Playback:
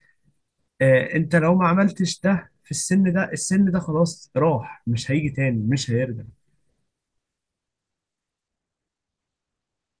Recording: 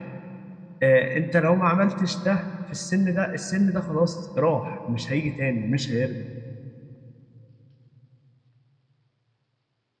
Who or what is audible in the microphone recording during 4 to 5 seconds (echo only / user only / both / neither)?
echo only